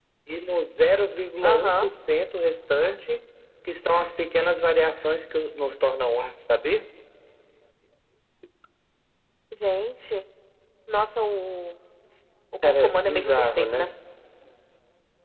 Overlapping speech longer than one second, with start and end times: 12.6-13.9

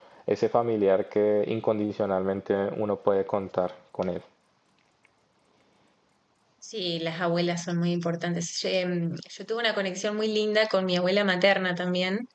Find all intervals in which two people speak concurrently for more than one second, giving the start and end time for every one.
none

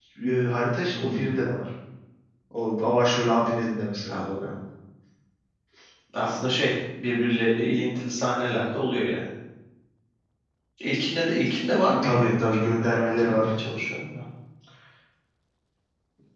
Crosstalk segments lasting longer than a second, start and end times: 12.0-13.5

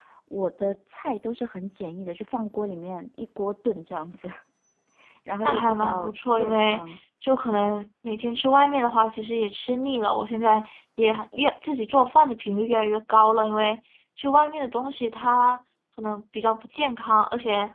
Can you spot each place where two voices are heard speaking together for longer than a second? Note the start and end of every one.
5.5-7.0

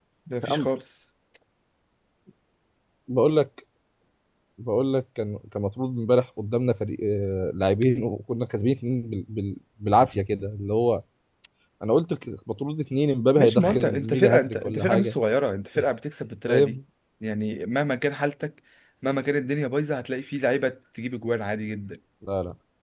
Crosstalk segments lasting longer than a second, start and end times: 13.4-15.2

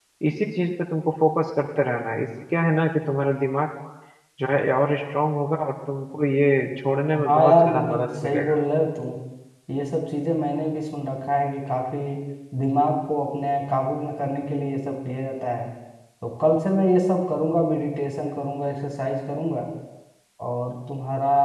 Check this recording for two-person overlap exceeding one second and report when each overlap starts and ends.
7.3-8.5

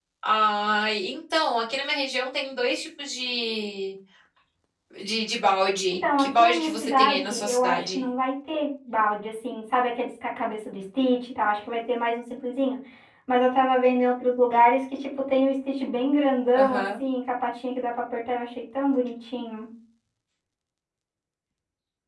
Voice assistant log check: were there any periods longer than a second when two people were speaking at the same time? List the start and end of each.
6.2-8.0

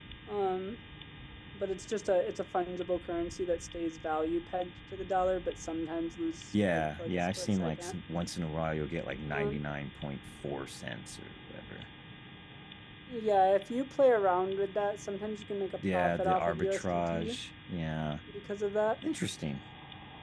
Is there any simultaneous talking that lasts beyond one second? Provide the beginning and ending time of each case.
6.5-8.0, 15.9-17.4

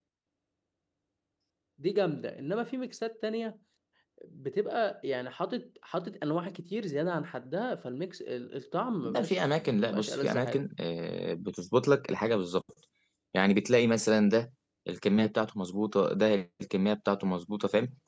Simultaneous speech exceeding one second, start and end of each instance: 9.0-10.6

